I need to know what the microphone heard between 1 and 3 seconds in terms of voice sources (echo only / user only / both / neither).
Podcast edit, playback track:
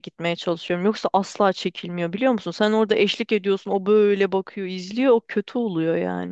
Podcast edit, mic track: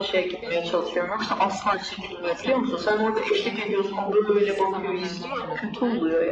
both